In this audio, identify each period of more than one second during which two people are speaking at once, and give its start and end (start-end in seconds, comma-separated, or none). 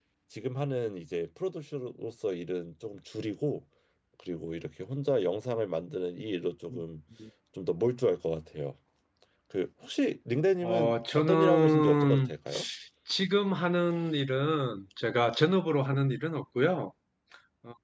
10.6-12.3